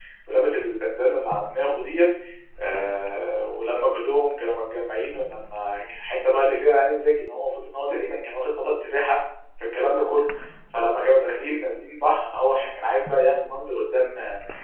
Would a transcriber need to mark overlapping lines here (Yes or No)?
No